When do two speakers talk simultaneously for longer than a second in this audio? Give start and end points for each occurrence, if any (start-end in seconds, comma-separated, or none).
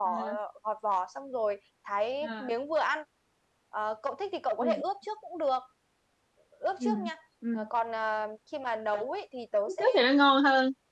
none